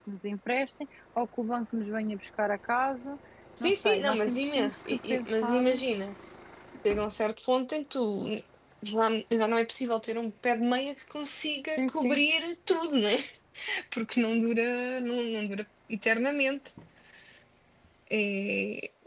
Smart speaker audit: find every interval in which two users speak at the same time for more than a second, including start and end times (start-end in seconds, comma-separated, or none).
3.6-5.6